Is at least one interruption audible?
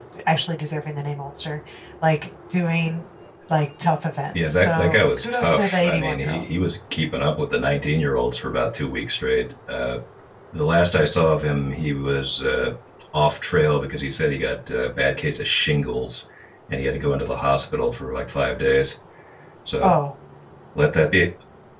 Yes, from 4.3 s

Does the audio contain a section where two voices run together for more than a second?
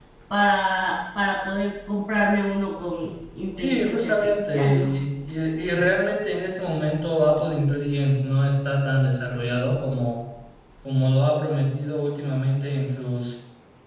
Yes, from 3.6 s

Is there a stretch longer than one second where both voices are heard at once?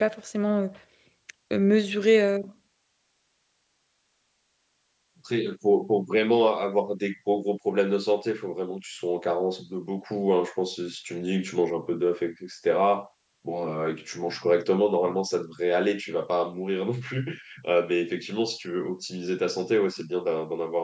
No

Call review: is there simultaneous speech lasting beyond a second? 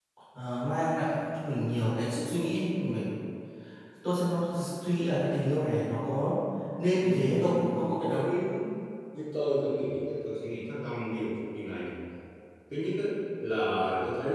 Yes, from 7.0 s

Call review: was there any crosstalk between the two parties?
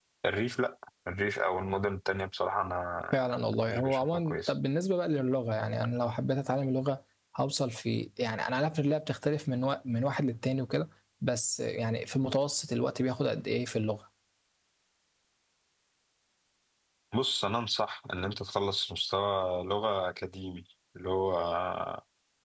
Yes, from 3.1 s

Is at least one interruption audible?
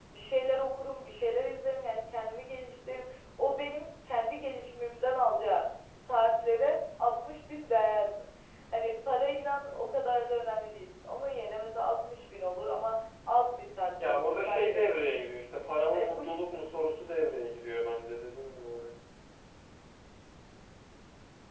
Yes, from 14.0 s

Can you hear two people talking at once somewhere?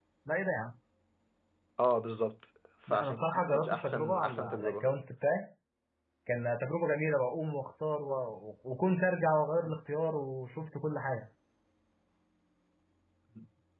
Yes, from 2.9 s

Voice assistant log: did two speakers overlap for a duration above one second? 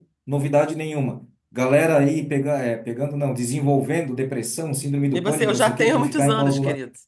Yes, from 5.1 s

